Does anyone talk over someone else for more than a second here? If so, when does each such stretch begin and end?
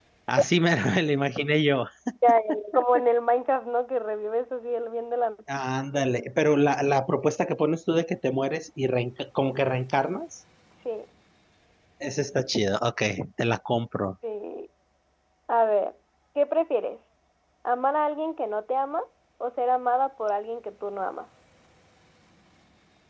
none

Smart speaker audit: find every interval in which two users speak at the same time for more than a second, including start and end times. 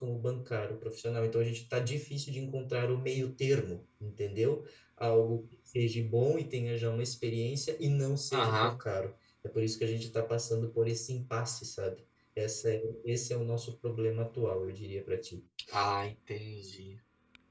none

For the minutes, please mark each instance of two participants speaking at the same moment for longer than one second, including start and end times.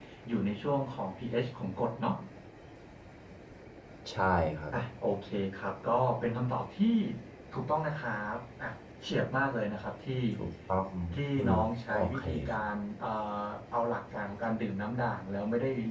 11.4-12.7

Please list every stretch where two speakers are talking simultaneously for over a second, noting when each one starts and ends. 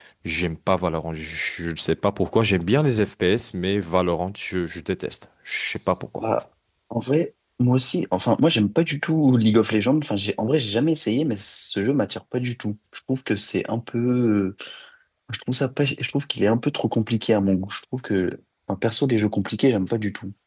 none

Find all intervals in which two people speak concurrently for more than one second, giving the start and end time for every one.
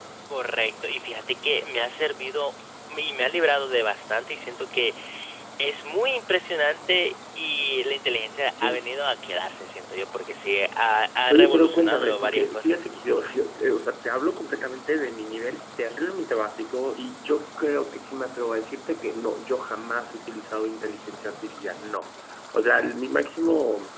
11.3-12.8

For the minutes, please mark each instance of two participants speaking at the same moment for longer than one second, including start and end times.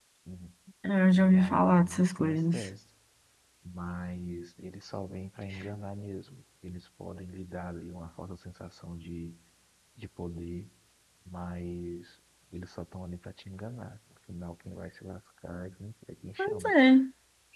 1.3-2.6

